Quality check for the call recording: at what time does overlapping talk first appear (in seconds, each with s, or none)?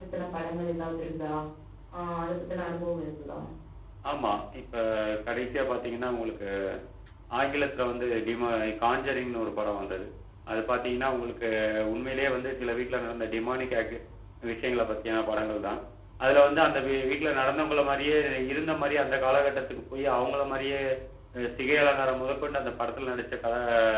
none